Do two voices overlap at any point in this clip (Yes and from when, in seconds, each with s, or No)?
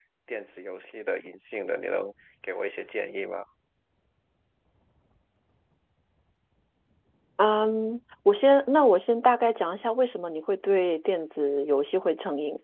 No